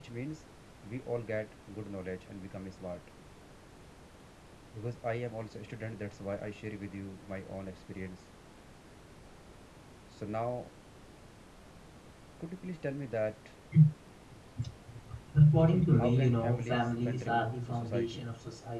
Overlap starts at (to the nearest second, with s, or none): 16 s